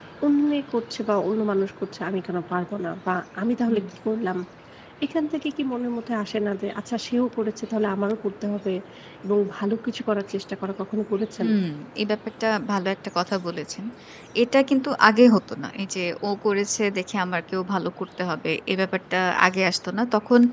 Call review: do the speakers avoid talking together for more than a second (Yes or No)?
Yes